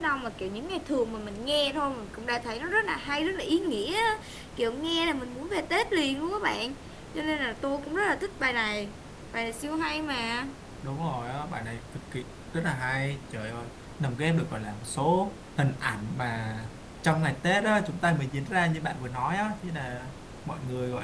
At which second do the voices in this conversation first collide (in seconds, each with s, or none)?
none